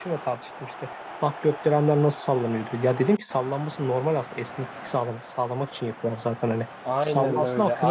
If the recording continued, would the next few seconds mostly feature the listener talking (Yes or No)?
Yes